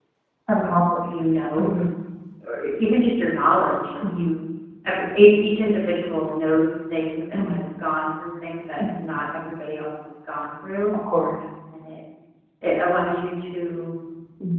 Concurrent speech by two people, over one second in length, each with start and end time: none

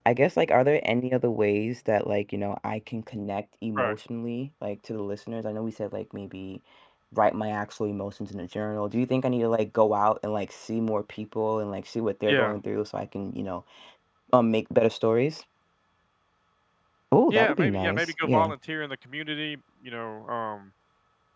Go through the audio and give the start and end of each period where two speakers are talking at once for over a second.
17.3-18.5

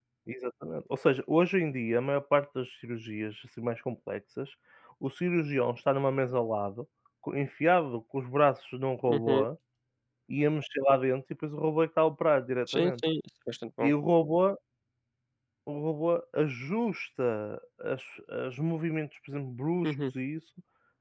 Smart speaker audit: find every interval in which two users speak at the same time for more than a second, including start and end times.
none

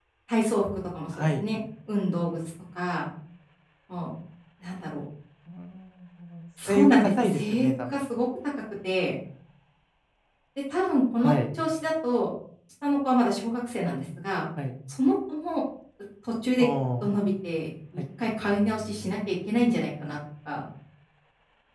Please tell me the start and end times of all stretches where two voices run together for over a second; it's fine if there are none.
6.7-8.0

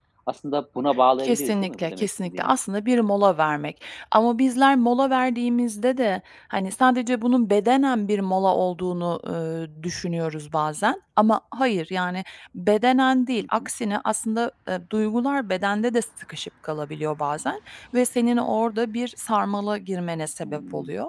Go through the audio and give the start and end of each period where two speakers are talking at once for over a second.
1.2-2.5

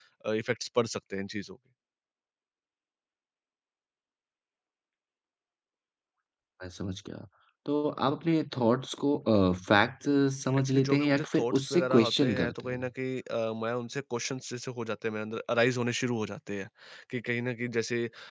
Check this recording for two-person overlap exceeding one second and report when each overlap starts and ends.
10.7-12.8

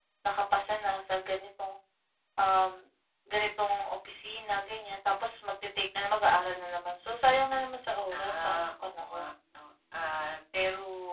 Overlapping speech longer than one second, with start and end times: 8.1-9.3

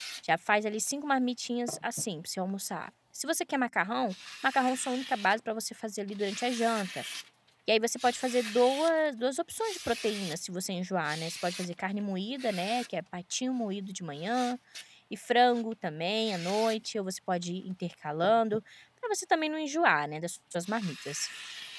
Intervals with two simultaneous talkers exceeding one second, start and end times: none

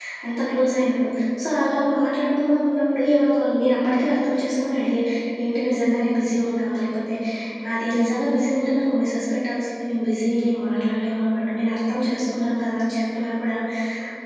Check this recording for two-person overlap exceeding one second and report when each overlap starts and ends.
none

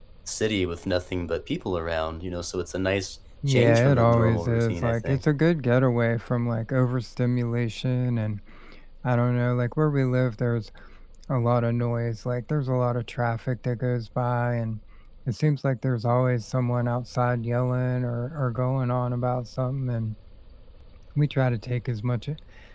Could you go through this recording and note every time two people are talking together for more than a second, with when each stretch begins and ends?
3.5-5.2

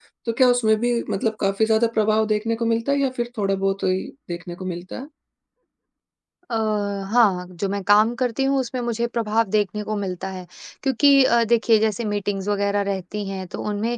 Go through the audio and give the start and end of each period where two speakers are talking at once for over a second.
none

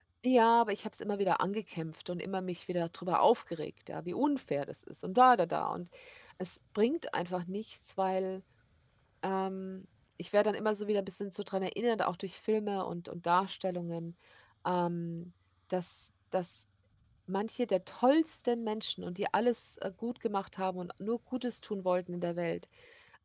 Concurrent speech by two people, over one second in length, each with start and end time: none

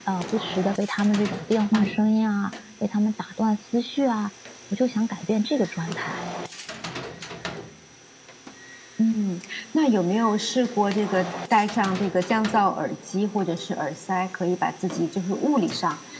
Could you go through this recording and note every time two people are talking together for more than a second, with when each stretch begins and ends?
none

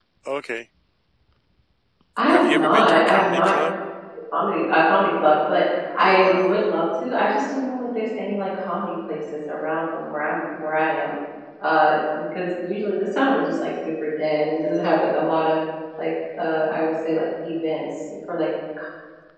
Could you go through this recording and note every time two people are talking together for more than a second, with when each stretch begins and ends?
2.3-3.5

